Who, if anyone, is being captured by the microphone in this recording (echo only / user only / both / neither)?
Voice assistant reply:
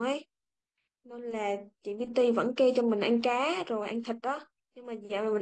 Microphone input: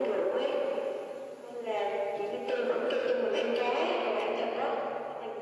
echo only